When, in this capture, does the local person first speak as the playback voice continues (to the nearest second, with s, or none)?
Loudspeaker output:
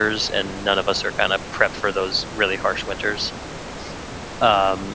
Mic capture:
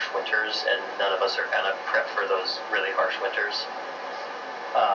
none